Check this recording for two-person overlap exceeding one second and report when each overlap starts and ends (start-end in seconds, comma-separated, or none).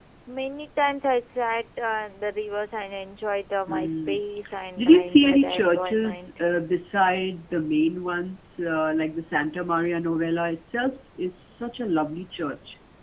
4.8-6.3